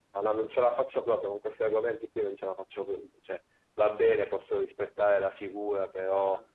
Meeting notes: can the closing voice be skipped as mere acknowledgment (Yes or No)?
Yes